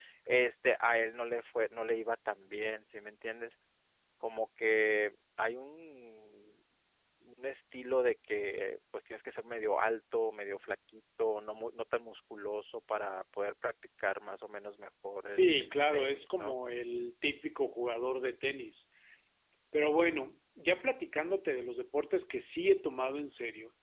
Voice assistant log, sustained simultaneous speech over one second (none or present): present